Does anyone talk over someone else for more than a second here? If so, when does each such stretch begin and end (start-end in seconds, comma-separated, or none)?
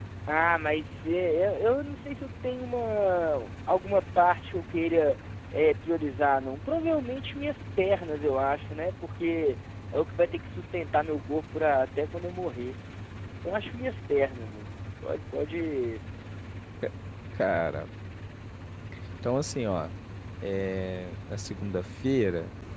none